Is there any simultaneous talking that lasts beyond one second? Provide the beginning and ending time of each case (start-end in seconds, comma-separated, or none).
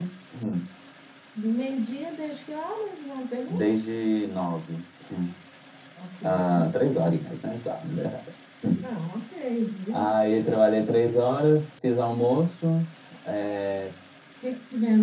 none